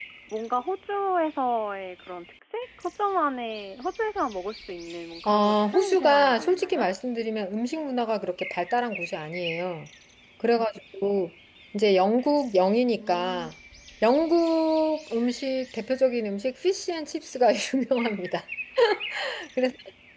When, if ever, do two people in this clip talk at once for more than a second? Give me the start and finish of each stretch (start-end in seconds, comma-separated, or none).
5.2-6.9